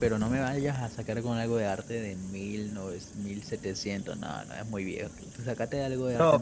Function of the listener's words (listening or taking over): taking over